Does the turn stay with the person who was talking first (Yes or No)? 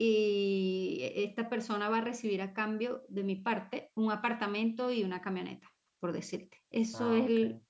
Yes